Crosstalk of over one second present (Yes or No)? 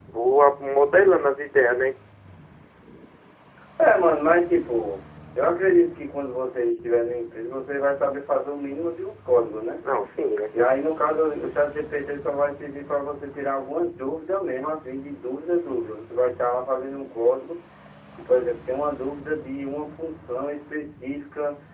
No